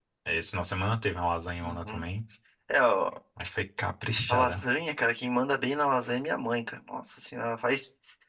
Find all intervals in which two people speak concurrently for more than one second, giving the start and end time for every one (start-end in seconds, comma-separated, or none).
none